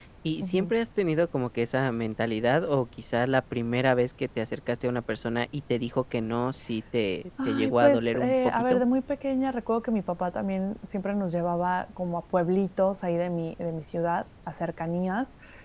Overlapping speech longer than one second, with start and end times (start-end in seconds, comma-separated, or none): 7.5-8.8